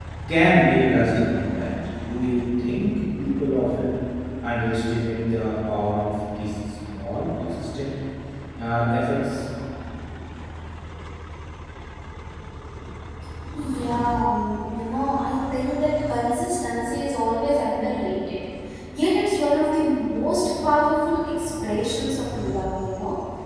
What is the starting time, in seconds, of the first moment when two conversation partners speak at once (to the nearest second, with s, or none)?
none